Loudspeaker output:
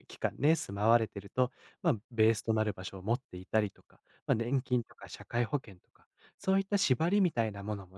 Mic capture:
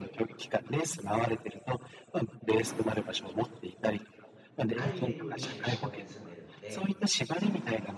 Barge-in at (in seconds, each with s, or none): 4.7 s